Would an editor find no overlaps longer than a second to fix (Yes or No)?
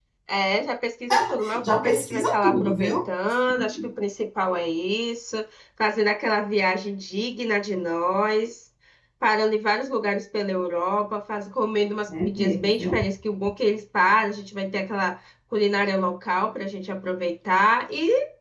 No